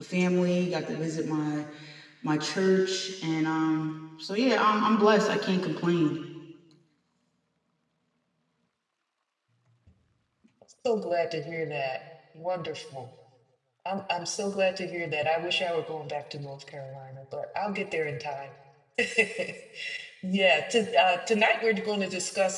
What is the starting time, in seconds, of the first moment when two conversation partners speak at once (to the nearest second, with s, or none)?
none